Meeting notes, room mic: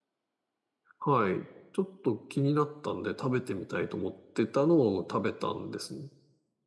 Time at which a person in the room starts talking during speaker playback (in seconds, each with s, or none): 1.0 s